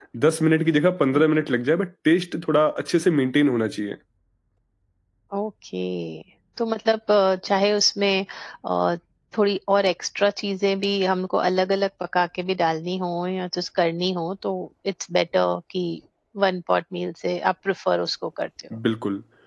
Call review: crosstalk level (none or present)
none